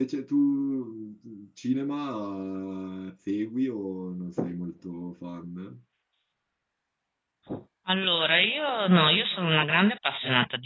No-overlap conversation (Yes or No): Yes